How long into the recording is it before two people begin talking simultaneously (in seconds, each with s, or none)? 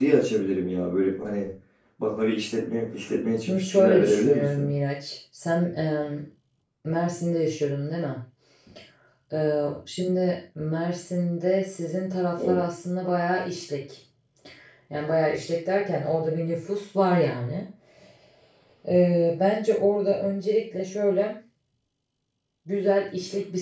3.4 s